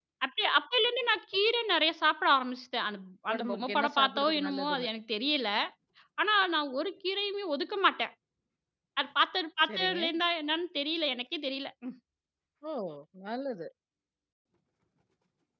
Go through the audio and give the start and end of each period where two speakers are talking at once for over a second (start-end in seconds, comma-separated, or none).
3.3-4.9